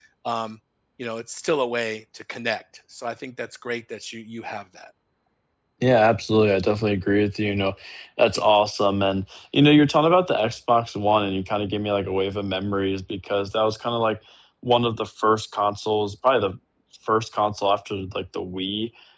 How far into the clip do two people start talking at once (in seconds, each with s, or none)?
none